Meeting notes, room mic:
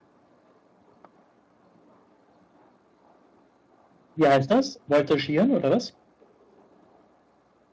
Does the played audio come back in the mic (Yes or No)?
No